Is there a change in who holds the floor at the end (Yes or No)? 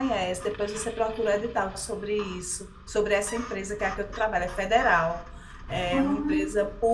No